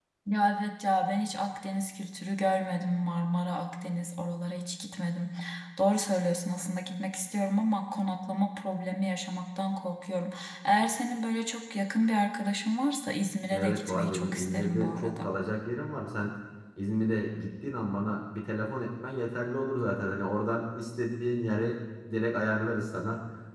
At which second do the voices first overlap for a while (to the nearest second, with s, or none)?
14 s